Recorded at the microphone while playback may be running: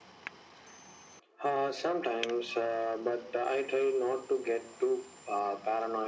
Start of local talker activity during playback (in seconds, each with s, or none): none